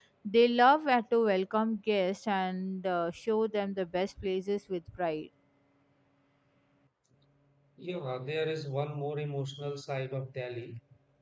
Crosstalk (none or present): none